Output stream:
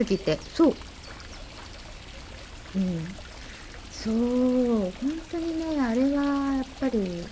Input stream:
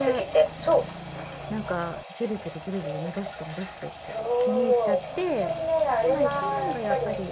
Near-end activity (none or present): present